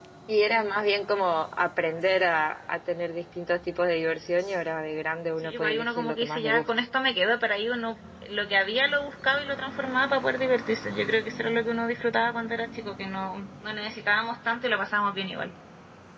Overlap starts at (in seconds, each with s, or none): 5.4 s